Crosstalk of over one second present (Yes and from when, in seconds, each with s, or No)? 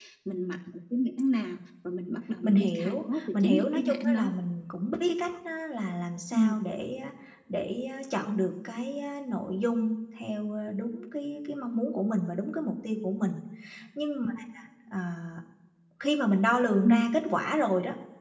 Yes, from 2.4 s